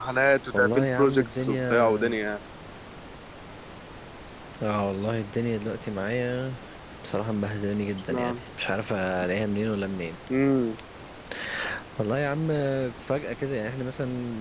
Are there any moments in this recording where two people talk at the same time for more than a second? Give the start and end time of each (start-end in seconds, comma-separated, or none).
0.5-1.9